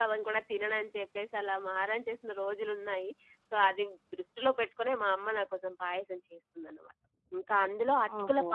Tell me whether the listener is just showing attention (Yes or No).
Yes